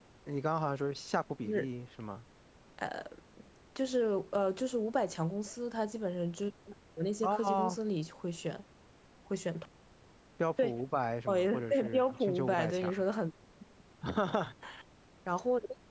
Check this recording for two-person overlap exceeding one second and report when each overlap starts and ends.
11.3-12.9

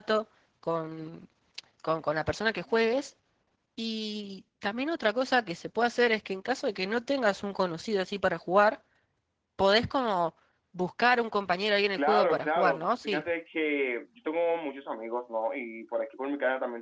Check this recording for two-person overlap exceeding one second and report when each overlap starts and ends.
11.9-13.2

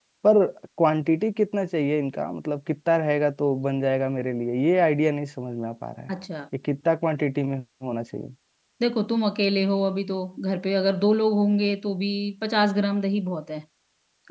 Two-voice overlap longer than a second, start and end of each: none

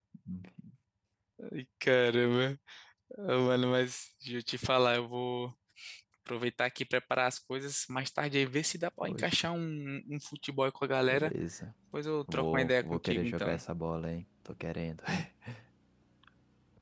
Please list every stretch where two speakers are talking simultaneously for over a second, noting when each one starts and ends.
12.3-13.6

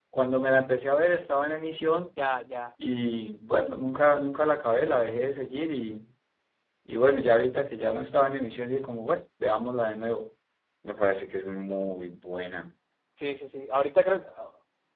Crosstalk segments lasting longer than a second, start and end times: none

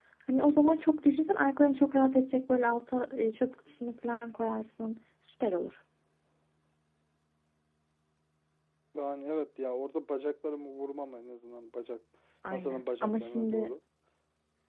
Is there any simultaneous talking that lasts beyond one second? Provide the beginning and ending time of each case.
12.5-13.7

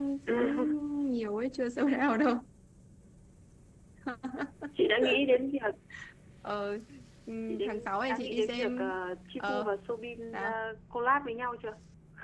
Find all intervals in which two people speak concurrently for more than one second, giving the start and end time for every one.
7.5-8.9

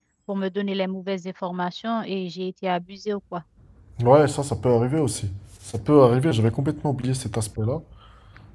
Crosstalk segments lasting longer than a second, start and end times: none

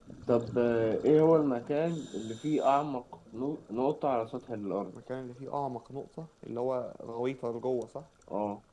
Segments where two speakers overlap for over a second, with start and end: none

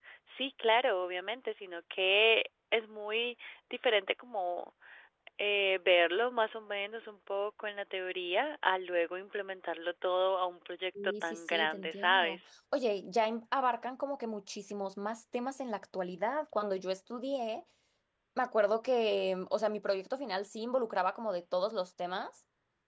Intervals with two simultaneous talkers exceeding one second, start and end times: 11.0-12.4

